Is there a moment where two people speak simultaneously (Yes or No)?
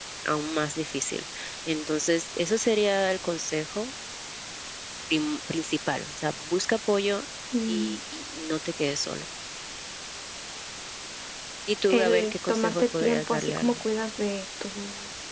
Yes